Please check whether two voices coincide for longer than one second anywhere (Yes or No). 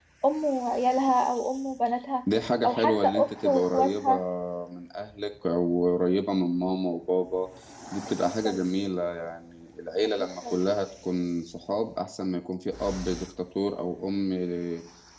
Yes